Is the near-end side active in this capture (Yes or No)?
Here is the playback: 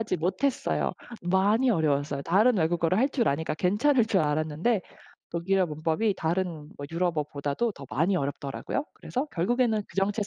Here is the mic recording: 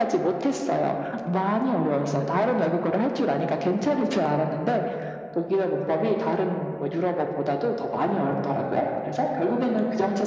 No